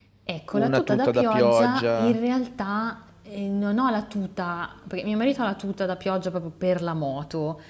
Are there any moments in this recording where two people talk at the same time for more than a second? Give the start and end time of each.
0.5-2.2

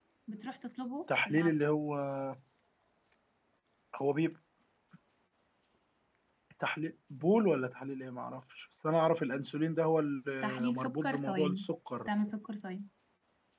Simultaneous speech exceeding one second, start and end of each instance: 10.4-11.7

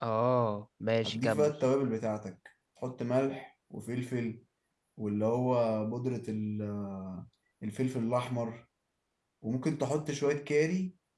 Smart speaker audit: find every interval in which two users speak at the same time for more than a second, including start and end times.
none

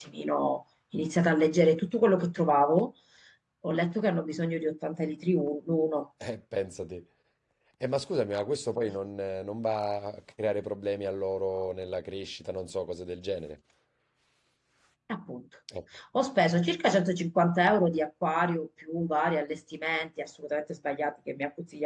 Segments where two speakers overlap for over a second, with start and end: none

